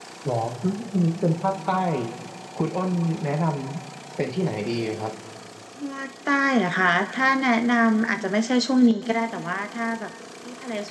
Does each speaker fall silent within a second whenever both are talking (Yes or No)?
Yes